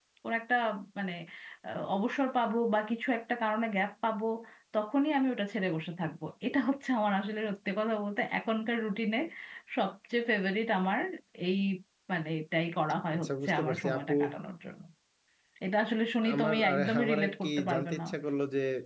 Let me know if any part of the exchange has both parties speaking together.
Yes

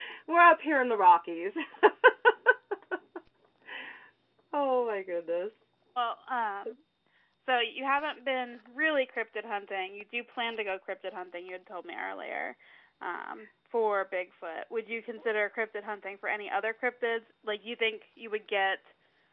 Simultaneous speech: No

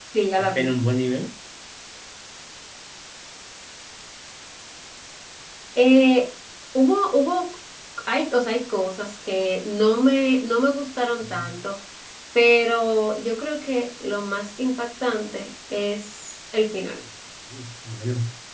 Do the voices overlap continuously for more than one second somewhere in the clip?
No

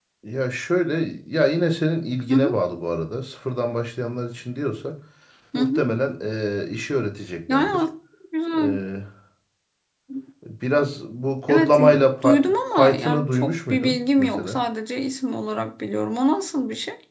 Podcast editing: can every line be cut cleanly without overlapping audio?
No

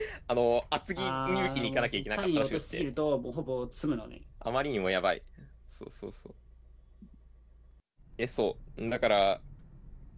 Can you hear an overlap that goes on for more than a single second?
Yes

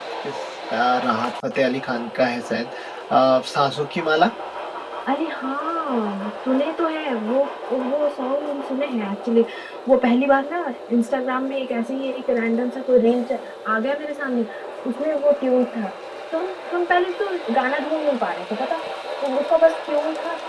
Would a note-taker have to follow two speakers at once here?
No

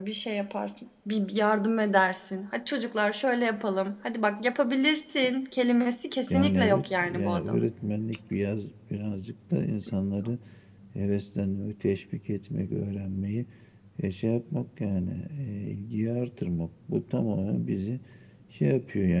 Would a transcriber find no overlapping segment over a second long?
No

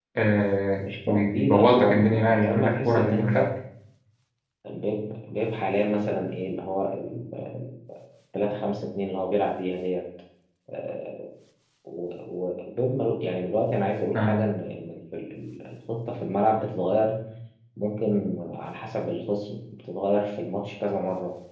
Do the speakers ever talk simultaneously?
Yes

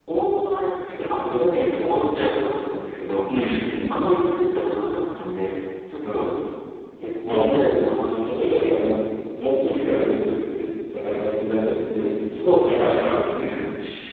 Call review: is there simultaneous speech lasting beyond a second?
Yes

